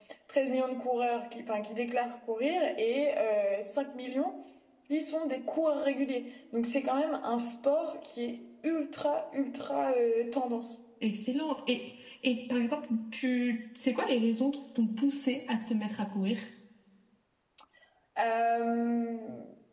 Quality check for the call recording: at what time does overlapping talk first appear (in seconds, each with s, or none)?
none